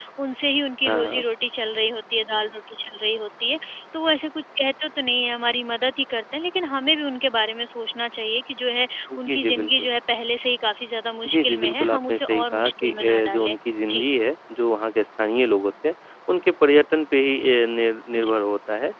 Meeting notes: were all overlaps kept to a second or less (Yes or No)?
No